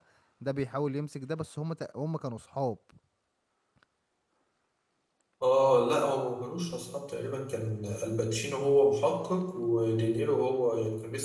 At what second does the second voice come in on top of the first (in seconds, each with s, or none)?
none